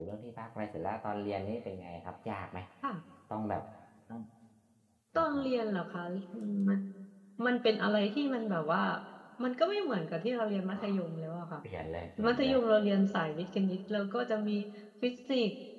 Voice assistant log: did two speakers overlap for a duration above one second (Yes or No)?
No